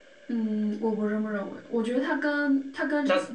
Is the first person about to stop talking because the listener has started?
No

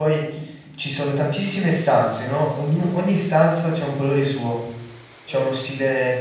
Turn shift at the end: No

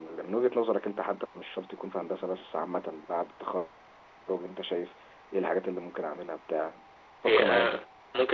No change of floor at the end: No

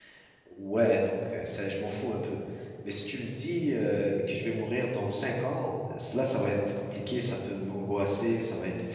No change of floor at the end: Yes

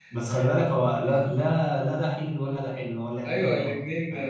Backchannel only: No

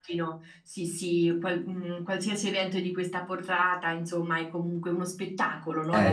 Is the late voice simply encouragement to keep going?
No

